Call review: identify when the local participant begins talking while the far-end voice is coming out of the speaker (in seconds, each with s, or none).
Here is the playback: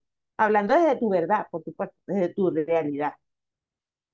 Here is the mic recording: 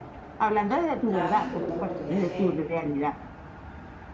1.0 s